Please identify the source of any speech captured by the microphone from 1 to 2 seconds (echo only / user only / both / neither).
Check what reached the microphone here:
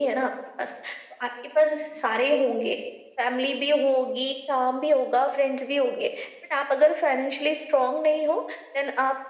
echo only